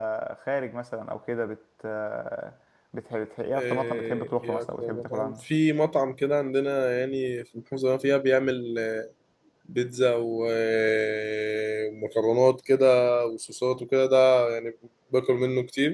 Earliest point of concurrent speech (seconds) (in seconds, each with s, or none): 3.5 s